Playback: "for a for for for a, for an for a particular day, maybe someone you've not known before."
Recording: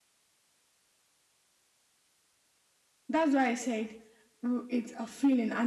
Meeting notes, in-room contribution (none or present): present